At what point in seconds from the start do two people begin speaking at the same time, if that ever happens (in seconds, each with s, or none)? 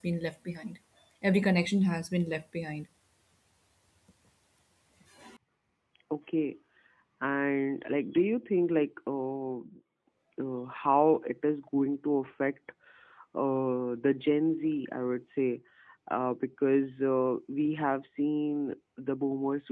none